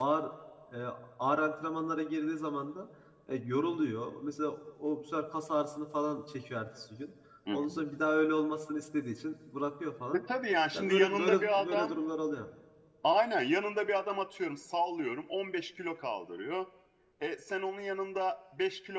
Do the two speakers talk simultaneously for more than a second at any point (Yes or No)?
Yes